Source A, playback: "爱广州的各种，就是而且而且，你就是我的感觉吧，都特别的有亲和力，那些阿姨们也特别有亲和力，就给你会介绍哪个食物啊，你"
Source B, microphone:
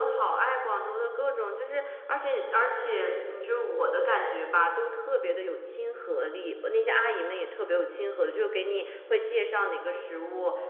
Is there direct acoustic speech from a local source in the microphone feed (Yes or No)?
No